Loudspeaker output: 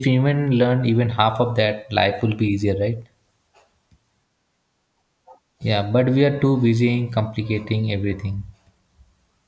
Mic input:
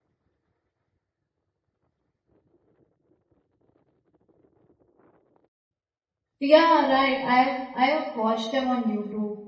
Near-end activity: present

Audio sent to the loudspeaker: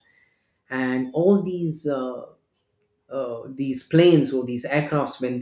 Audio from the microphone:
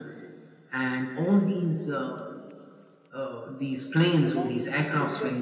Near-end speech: present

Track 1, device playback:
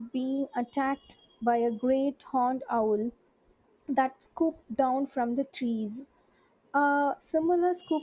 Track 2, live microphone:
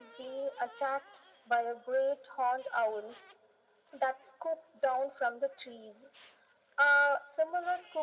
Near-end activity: none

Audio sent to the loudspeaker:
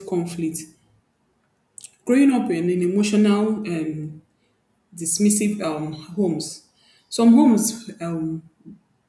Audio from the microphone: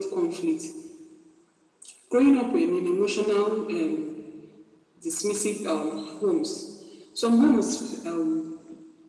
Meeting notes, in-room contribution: none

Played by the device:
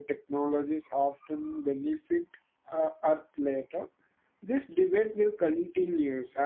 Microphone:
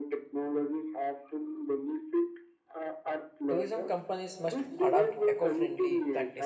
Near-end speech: present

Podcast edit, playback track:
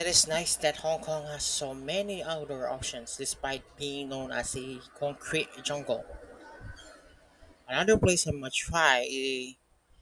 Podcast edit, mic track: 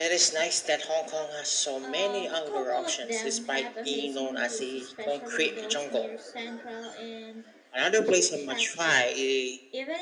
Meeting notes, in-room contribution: present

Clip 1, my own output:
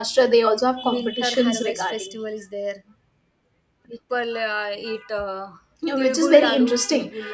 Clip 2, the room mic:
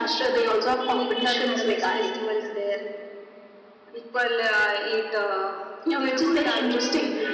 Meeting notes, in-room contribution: none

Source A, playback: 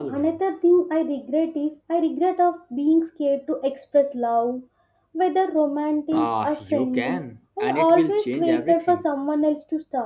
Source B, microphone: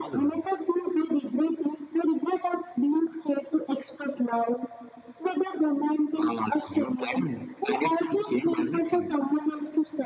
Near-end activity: none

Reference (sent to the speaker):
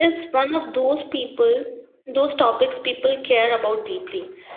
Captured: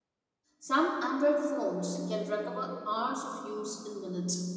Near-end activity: present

